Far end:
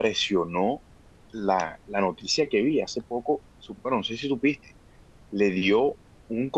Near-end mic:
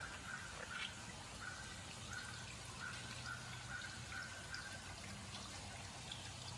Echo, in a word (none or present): none